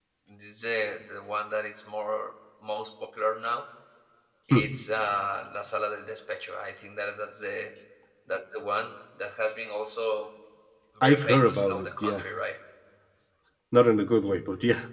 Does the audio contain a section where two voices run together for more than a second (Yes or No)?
Yes